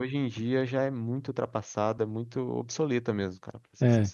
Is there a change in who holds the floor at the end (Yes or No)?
Yes